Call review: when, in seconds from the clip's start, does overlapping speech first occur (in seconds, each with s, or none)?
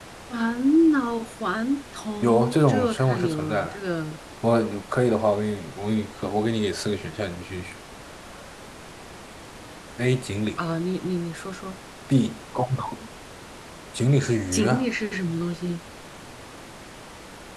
2.2 s